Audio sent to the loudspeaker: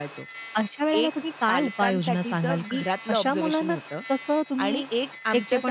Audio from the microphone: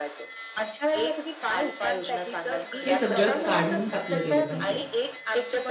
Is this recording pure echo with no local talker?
No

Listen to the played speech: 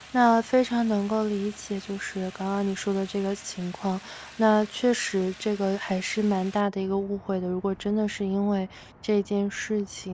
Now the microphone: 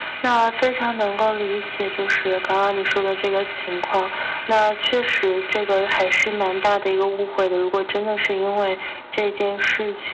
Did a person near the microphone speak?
No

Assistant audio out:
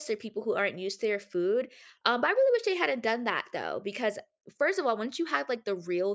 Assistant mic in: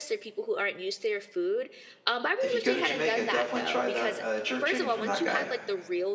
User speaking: Yes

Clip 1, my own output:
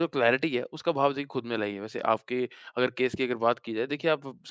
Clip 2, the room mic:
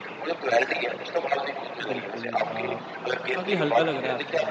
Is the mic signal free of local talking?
No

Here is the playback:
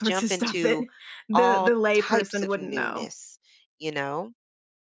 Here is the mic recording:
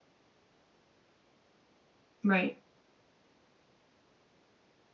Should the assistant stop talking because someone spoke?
Yes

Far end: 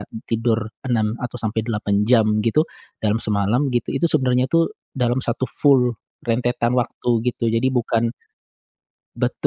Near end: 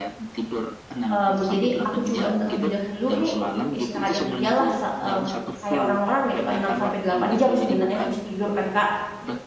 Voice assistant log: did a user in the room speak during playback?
Yes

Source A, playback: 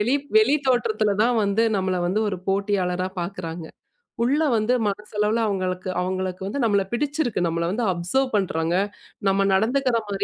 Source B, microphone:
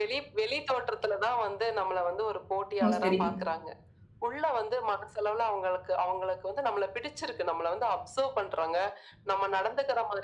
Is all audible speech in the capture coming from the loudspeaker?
No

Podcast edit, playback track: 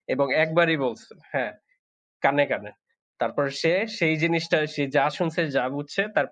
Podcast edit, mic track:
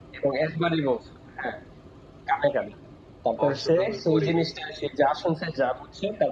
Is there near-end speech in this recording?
Yes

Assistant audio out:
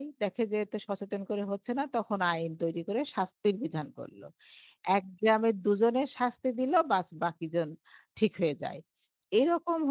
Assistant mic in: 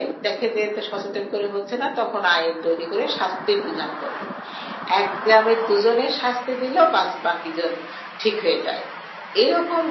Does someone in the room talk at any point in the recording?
No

